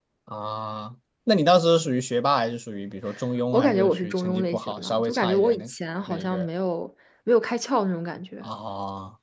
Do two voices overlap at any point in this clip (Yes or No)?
Yes